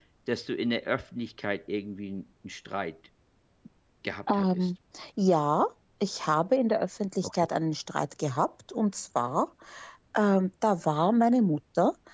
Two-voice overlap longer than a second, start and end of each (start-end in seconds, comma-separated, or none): none